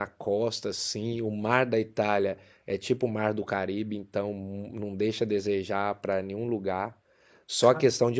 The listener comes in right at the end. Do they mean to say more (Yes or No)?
No